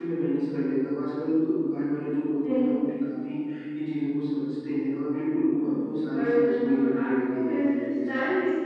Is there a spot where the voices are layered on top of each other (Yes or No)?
Yes